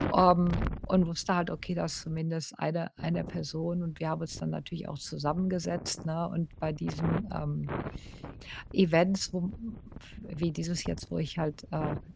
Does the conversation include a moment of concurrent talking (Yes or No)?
No